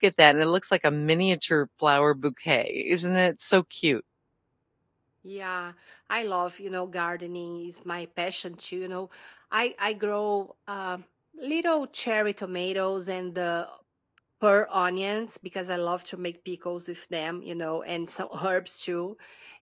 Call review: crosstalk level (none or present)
none